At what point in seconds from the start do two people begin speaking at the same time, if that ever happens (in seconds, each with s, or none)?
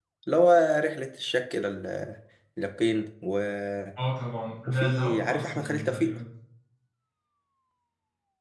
4.7 s